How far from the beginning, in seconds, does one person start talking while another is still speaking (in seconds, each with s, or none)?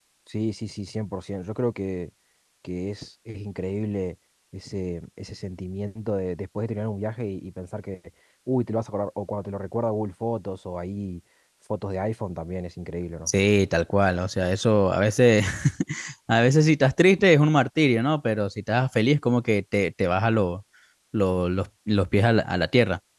none